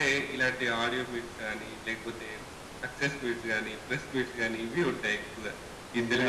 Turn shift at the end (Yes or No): No